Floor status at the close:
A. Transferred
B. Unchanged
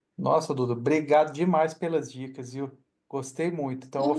B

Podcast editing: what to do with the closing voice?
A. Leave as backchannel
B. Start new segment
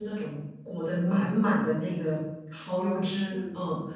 A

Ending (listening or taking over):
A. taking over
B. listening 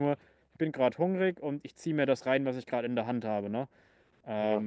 B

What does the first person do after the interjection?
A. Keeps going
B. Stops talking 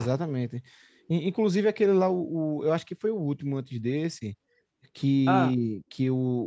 A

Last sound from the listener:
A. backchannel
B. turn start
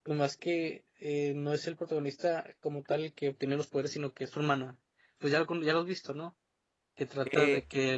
B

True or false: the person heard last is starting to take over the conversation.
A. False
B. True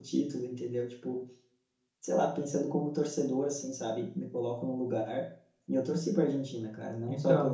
A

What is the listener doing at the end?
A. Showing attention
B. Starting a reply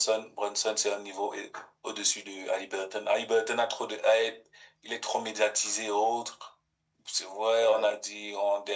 A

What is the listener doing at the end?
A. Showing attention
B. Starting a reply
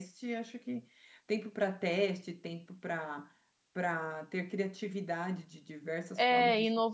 B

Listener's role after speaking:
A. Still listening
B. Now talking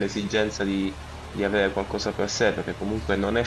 A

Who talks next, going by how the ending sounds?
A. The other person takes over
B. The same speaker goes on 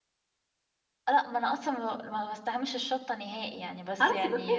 A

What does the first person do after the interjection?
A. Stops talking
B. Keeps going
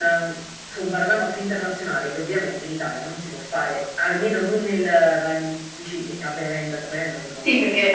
A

